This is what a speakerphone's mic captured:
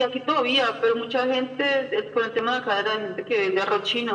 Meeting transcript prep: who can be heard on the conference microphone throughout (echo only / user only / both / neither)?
echo only